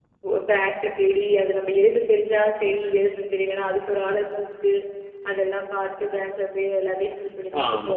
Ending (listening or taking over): taking over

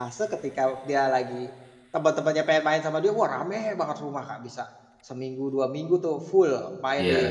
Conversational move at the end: listening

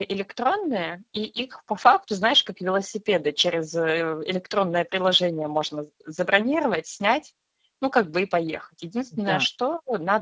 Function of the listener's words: listening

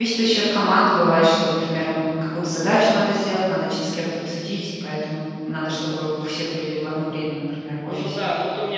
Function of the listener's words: taking over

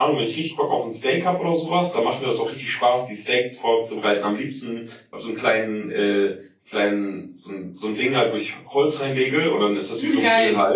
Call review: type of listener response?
listening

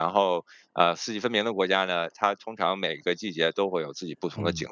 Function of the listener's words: taking over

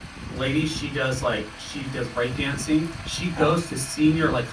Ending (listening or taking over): listening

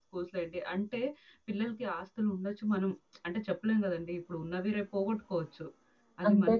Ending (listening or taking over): listening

